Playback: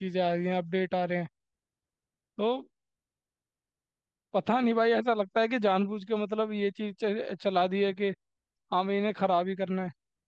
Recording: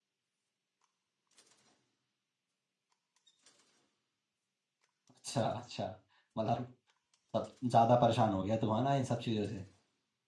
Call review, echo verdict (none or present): none